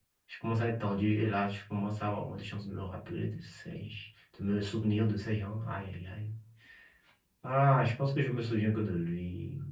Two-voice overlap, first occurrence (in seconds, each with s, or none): none